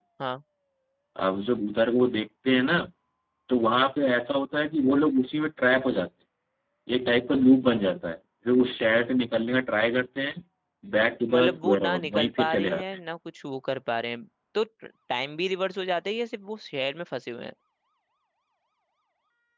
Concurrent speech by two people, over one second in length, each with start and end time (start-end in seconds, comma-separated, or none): 11.3-12.8